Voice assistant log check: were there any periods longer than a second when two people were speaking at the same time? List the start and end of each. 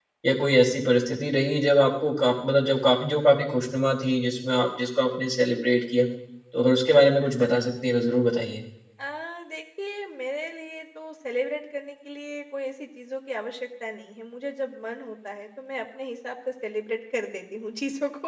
none

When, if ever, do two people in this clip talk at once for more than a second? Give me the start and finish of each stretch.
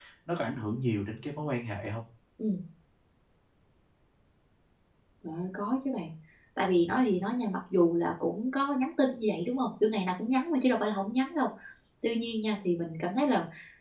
none

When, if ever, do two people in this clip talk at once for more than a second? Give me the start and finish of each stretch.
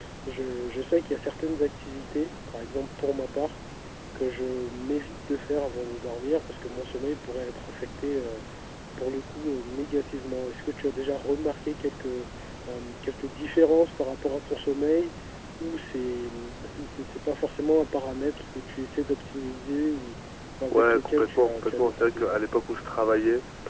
20.7-22.4

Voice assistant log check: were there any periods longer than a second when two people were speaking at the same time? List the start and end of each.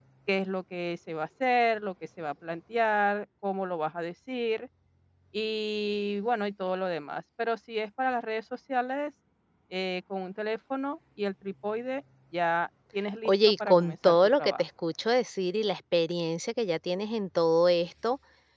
13.2-14.6

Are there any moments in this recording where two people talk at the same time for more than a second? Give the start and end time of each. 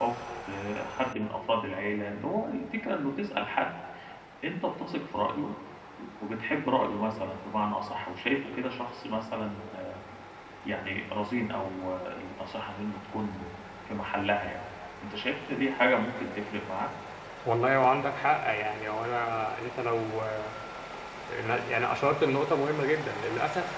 none

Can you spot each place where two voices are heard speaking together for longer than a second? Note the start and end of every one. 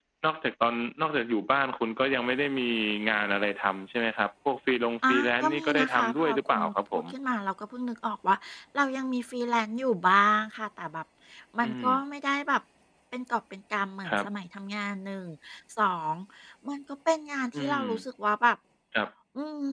5.1-7.0

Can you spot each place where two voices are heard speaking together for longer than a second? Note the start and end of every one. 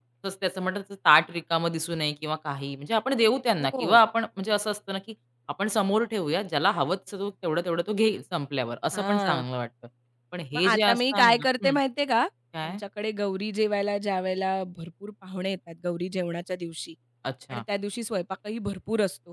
10.5-11.8

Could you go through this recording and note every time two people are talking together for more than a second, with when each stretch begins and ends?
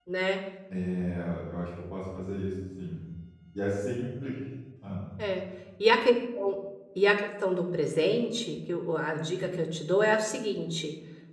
none

